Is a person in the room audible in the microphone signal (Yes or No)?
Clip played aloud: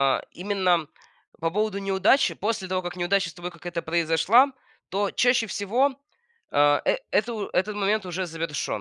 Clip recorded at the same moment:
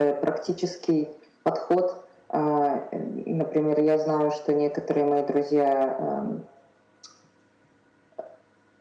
Yes